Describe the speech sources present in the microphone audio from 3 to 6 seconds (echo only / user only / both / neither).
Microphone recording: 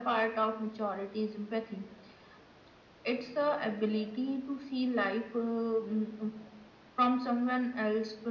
echo only